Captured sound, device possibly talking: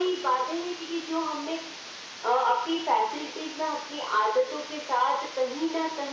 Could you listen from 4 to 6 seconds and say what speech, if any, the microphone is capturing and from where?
echo only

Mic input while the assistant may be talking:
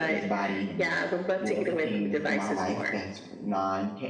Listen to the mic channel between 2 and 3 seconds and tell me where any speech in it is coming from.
both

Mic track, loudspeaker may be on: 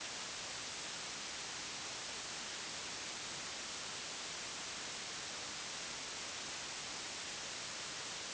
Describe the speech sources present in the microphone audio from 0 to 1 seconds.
neither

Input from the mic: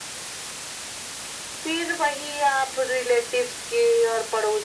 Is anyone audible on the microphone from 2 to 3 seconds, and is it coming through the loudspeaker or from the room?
echo only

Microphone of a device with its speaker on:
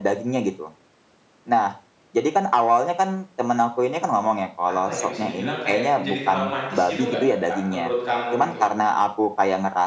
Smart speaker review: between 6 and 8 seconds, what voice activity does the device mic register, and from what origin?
both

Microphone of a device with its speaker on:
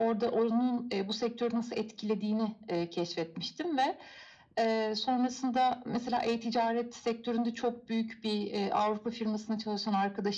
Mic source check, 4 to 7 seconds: echo only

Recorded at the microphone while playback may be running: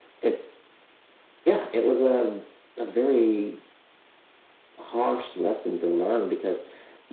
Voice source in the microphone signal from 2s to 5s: echo only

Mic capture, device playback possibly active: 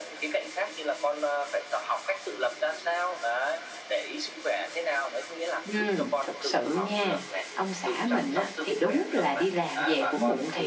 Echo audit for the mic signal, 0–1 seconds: echo only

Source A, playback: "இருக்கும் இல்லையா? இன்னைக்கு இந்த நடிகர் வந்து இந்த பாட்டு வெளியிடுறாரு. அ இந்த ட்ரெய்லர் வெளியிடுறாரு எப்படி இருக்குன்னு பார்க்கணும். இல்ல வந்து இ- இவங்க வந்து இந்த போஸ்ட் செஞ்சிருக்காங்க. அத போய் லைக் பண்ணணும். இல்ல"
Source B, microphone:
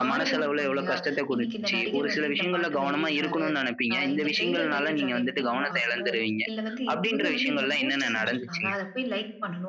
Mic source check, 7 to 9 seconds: both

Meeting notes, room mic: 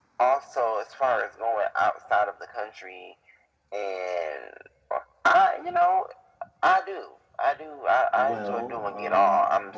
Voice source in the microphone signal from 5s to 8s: echo only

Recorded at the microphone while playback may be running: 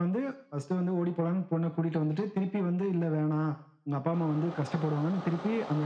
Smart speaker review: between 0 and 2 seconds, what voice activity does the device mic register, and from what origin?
echo only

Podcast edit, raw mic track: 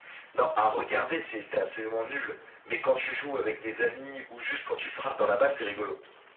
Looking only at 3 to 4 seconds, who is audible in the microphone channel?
echo only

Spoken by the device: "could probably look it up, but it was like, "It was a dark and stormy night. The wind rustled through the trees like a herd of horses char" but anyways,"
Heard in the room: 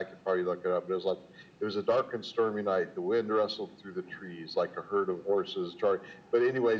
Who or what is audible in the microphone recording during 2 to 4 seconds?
echo only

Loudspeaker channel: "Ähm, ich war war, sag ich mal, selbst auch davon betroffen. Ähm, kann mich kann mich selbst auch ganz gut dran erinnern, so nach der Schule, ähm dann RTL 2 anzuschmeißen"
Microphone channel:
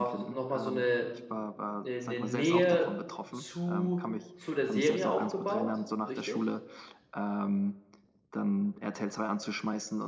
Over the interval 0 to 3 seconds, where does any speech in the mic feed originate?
both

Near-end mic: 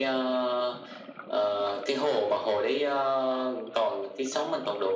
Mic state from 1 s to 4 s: echo only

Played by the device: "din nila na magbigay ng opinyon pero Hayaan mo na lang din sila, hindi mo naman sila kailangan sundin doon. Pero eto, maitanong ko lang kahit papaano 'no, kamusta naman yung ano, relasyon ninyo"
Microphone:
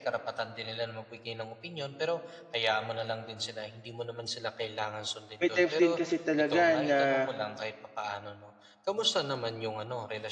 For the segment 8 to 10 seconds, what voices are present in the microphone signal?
echo only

